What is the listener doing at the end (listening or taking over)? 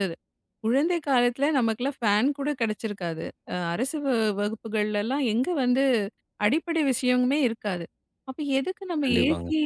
listening